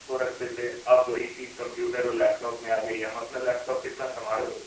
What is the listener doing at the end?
listening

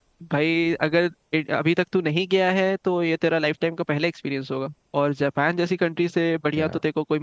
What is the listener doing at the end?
listening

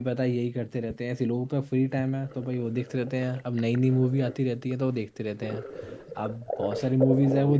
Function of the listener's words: listening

